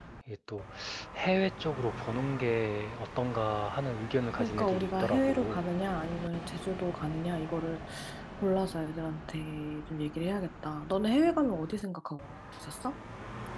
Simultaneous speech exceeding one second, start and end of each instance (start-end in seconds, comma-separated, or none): 4.4-5.6